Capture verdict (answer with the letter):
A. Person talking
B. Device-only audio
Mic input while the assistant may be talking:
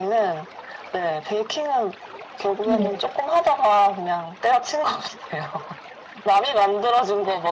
A